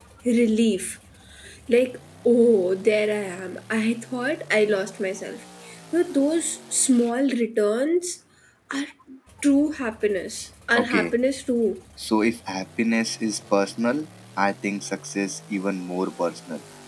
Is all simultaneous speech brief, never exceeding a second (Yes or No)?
Yes